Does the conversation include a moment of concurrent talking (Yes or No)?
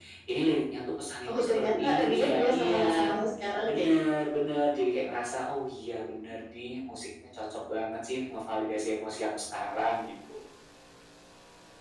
Yes